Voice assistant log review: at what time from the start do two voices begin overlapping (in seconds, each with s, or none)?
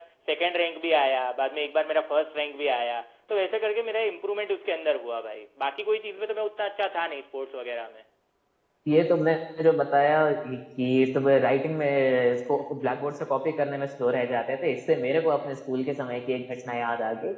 none